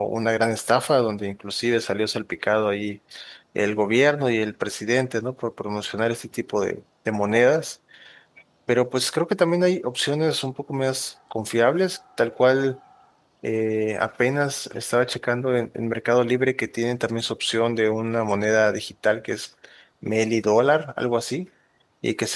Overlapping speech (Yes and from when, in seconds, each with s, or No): No